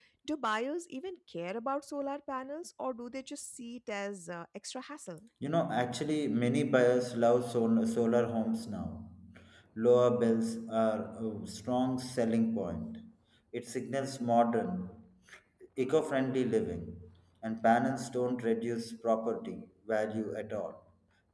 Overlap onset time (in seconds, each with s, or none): none